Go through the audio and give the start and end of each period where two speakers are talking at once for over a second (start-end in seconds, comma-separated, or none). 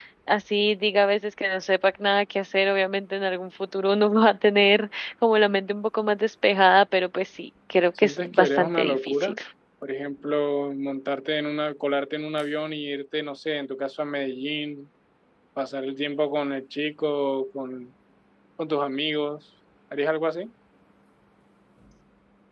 8.0-9.4